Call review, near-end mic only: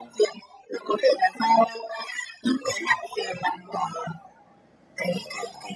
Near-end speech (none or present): none